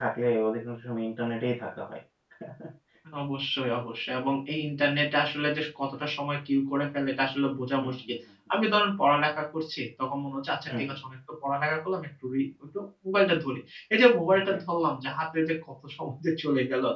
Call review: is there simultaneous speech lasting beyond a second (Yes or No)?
No